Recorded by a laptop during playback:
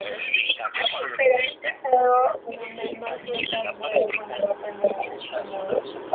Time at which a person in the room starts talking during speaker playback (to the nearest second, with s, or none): none